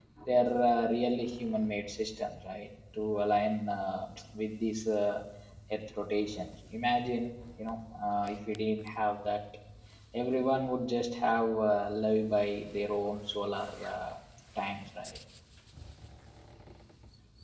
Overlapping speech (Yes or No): No